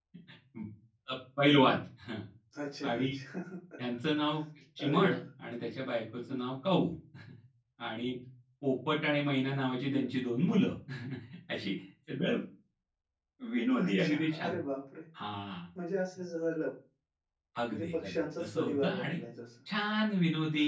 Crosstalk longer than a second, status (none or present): present